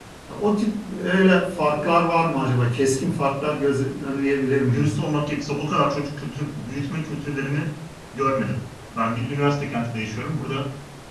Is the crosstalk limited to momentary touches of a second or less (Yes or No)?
Yes